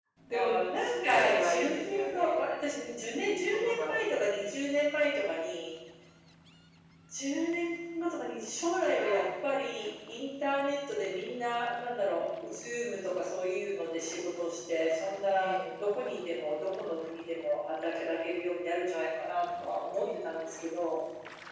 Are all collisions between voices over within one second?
No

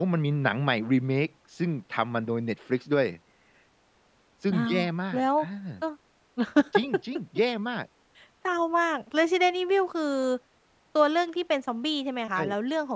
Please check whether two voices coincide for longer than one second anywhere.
No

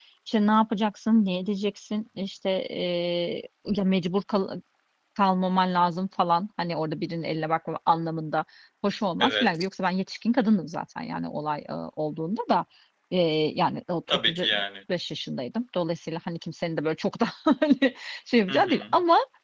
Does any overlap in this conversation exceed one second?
No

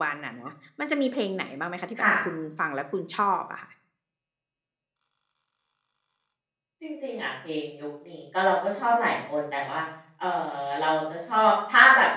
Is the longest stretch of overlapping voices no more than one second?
Yes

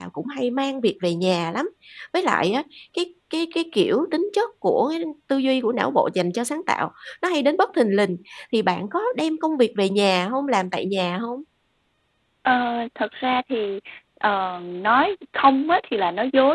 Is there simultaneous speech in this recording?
No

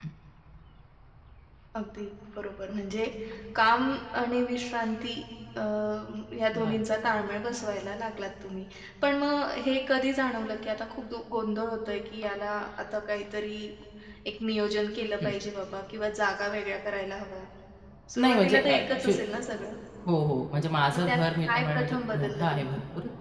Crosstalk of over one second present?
Yes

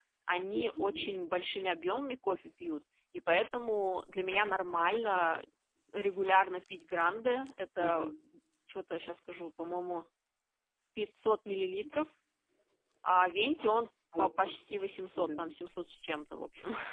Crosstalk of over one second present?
No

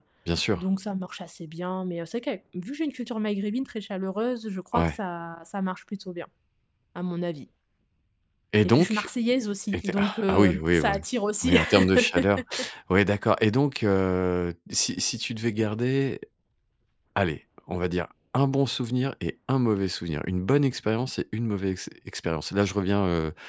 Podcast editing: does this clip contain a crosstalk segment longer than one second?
Yes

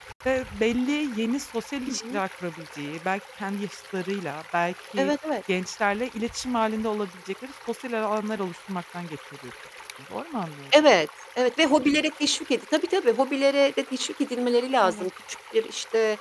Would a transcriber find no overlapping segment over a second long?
Yes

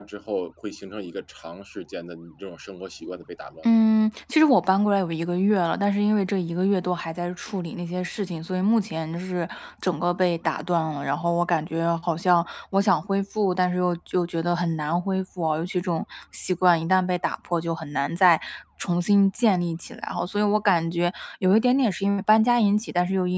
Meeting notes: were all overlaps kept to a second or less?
Yes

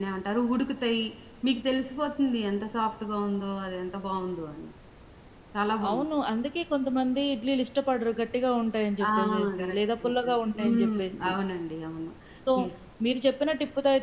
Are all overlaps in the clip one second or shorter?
No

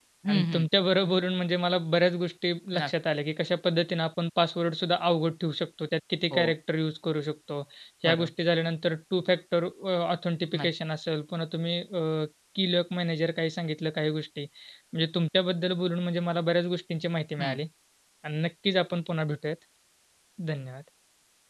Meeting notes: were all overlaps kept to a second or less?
Yes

